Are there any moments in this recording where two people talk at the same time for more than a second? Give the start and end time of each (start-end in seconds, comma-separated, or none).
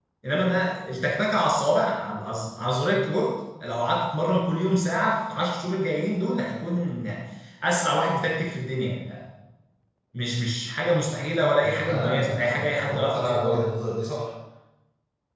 11.6-13.6